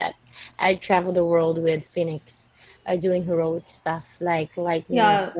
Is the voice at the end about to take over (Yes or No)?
No